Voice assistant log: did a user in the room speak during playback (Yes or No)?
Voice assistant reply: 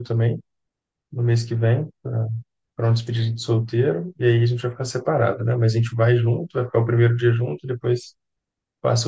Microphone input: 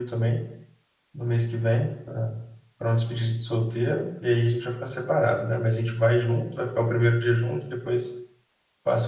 No